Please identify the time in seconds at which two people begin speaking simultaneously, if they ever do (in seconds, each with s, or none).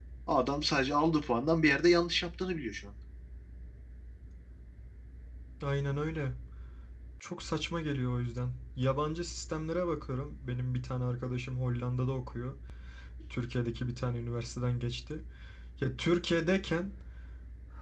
none